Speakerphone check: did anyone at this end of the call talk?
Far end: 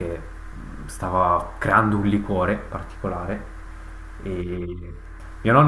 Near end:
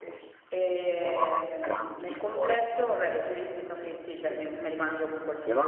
Yes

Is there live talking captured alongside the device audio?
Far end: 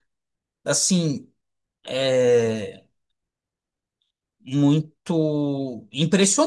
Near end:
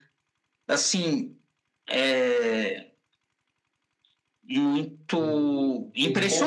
Yes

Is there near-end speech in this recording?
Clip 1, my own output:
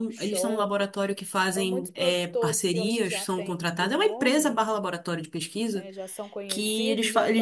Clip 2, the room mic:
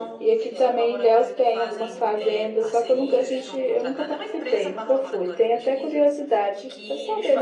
Yes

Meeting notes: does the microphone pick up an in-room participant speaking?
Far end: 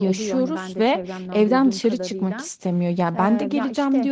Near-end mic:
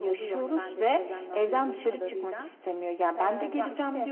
No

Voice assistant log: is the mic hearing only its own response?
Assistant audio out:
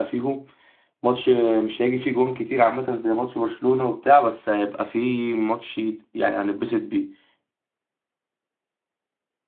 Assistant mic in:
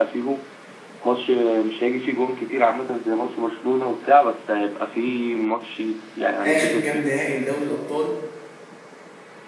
No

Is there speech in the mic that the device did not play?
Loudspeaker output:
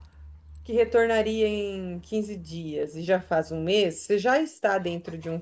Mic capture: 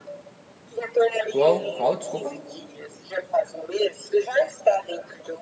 Yes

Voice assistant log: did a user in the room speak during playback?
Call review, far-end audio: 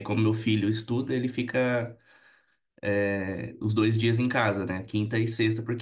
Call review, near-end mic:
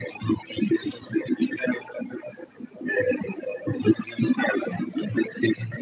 No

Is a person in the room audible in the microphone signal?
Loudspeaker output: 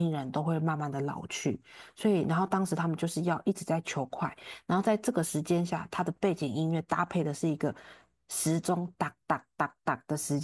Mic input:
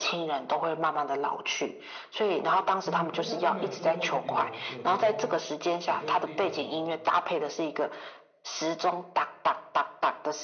Yes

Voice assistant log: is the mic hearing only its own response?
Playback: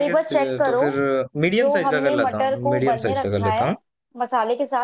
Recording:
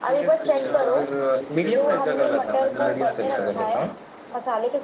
No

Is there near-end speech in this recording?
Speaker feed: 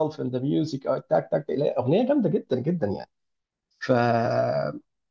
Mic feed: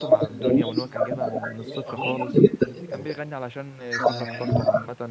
Yes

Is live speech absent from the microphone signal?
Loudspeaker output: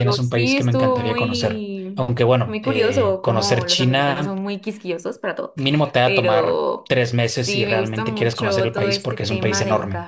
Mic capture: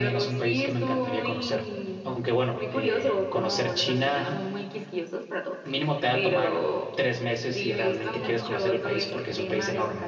No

